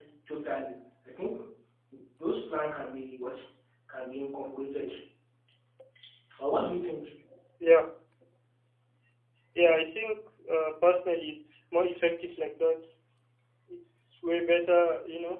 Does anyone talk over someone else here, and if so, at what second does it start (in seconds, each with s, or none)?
none